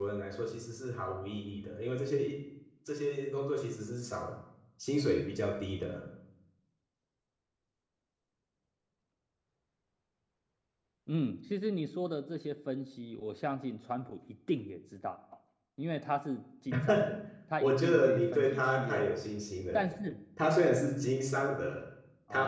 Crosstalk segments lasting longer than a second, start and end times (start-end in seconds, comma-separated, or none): 17.6-19.0